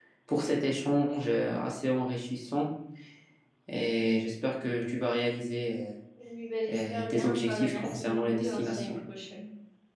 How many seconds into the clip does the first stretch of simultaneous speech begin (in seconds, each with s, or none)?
6.7 s